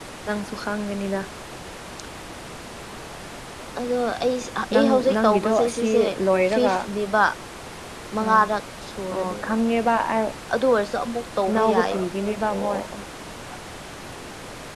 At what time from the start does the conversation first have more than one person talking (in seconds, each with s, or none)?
4.7 s